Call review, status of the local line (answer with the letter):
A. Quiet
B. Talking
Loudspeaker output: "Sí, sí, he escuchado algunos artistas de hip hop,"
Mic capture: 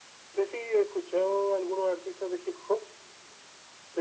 A